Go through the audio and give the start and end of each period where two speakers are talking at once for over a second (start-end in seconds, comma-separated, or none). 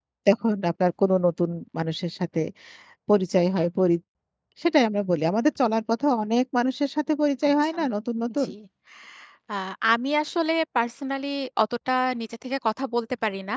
none